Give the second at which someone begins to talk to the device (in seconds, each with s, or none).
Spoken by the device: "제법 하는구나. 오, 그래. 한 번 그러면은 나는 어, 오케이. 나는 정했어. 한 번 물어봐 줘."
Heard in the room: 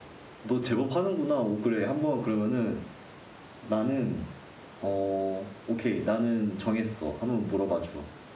none